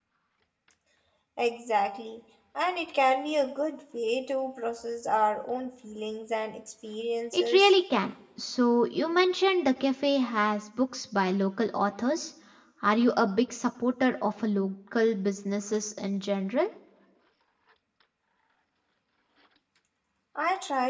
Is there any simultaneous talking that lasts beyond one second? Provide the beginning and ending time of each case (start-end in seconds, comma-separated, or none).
none